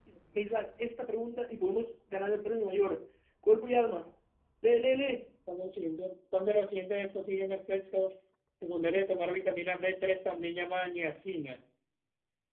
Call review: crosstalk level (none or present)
none